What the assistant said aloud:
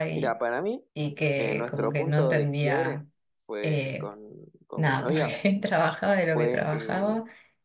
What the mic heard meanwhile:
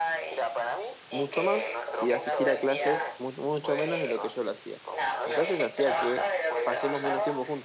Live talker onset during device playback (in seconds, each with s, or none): 1.1 s